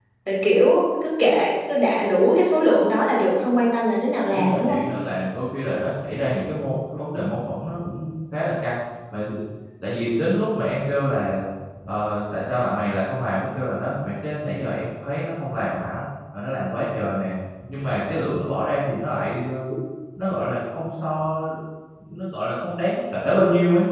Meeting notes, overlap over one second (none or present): none